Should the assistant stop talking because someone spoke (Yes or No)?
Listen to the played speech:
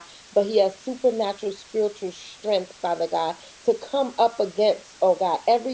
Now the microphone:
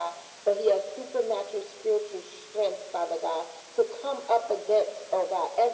No